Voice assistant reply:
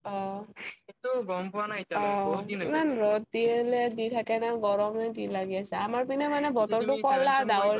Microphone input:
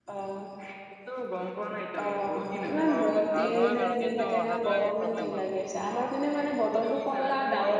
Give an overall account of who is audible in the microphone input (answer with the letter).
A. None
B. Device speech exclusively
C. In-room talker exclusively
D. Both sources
D